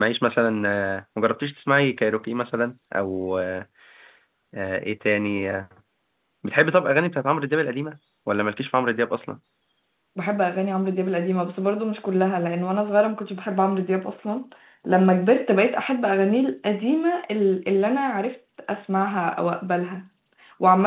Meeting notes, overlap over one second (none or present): none